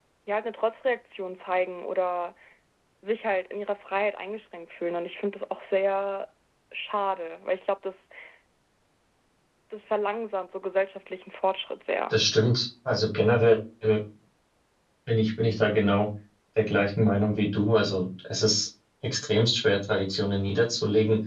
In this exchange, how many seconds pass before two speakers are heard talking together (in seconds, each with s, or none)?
none